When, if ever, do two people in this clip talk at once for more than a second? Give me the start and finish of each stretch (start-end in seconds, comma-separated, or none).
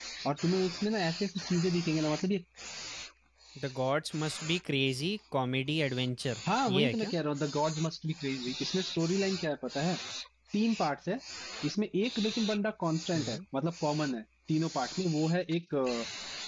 none